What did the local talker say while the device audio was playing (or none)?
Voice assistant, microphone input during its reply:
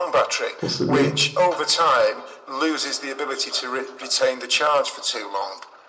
possibly.